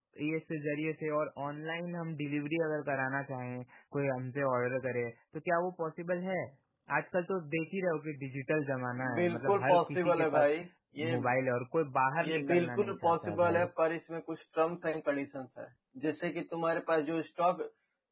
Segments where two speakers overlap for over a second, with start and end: 9.2-10.5, 12.2-13.7

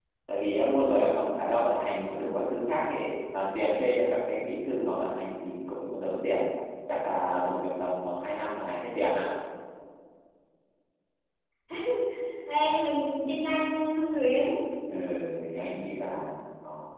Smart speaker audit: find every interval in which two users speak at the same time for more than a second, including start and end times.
none

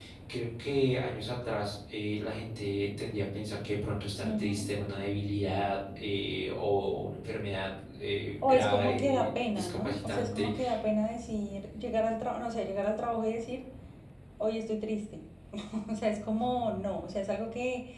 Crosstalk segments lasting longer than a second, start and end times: 8.4-10.5

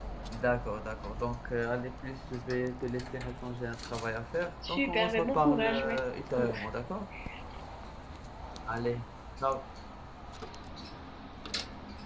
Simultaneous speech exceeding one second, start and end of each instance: 4.7-6.0

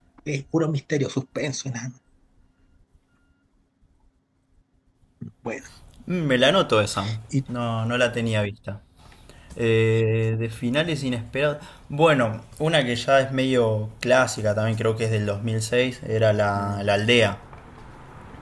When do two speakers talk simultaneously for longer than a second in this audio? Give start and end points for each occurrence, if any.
none

